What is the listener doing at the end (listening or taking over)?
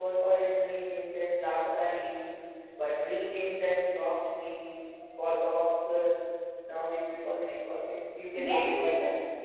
taking over